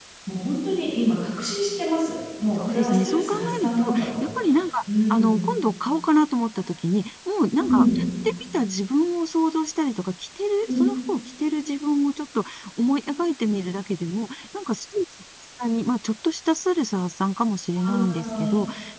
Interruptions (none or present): present